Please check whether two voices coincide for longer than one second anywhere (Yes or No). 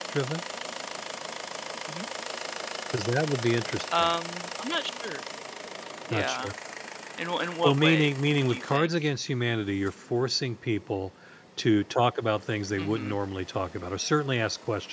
Yes